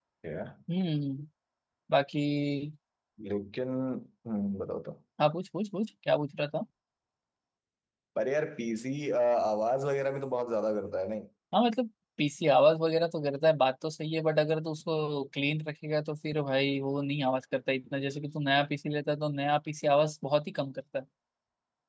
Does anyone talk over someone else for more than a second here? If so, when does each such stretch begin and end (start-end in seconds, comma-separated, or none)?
none